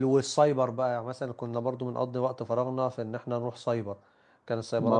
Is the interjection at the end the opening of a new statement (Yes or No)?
Yes